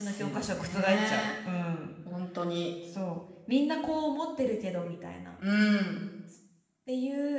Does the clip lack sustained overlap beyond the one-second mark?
No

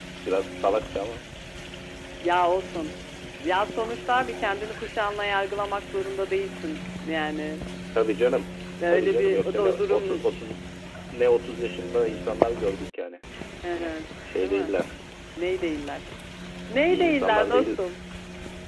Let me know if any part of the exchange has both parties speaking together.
Yes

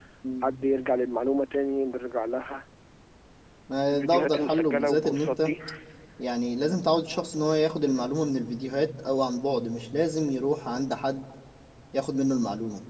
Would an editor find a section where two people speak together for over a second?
Yes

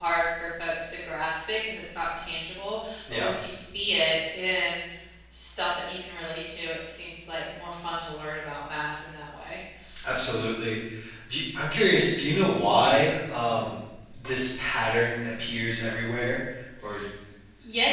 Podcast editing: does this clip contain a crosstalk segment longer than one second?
No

